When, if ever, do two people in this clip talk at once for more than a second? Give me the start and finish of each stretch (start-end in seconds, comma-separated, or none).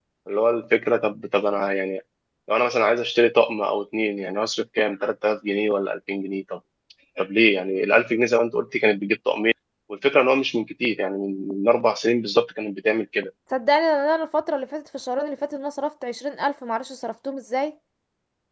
none